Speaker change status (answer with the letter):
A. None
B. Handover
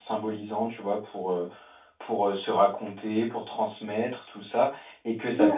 A